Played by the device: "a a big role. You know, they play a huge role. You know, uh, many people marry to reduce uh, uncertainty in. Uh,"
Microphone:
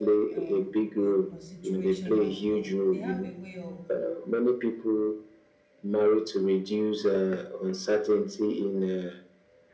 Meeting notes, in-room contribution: present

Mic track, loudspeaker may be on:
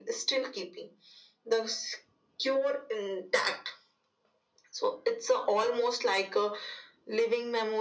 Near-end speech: none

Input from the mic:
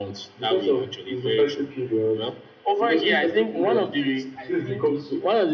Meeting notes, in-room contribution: present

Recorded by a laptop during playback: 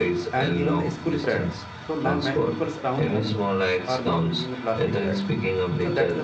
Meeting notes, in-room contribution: present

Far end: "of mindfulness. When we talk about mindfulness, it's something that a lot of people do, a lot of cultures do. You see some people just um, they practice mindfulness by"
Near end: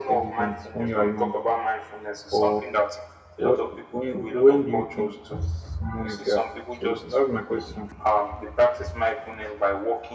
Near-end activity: present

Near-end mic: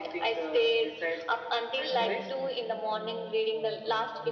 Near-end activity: present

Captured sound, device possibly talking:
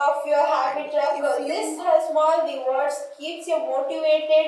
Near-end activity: present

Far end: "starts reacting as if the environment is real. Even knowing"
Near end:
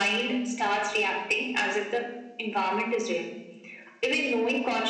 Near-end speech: none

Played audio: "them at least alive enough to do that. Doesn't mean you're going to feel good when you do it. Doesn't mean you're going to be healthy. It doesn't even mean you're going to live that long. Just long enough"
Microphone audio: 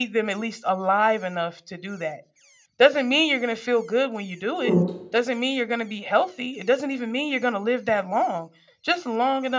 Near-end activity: present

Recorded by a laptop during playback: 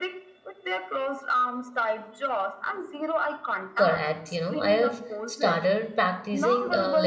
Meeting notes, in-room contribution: present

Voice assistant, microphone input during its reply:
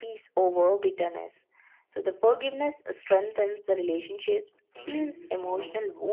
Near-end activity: present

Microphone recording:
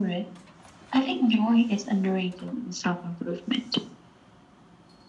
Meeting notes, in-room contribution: none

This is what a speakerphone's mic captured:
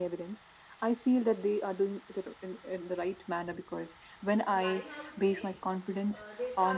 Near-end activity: present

